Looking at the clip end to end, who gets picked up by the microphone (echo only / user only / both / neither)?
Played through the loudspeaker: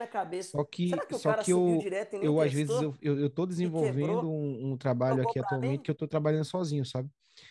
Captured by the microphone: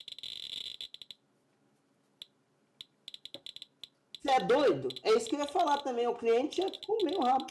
user only